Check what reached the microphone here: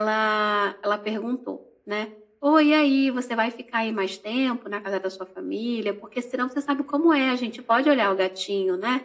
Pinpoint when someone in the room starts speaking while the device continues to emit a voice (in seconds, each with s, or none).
none